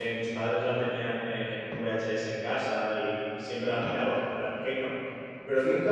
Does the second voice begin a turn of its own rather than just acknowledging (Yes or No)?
No